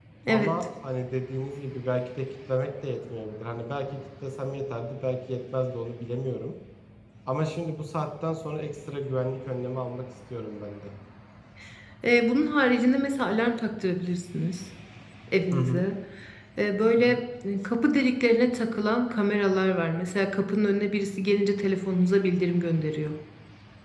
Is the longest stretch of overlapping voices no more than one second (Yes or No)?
Yes